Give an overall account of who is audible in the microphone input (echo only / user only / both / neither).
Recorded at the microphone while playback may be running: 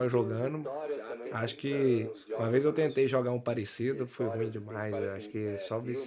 both